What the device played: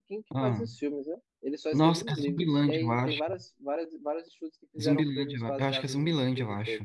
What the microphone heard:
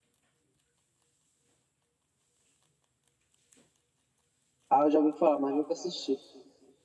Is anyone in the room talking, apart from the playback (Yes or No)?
Yes